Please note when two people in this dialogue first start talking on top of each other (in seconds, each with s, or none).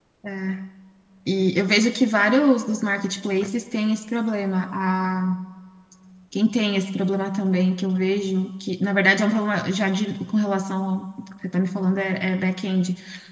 none